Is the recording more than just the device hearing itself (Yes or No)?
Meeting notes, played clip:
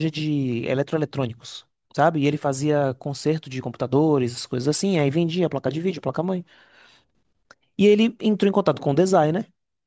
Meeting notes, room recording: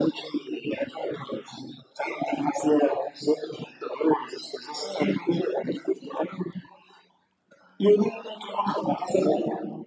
No